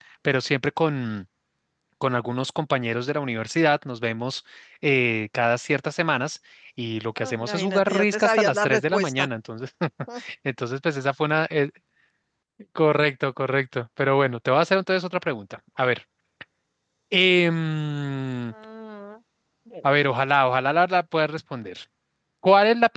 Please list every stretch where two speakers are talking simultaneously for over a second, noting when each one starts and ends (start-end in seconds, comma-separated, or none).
7.2-9.3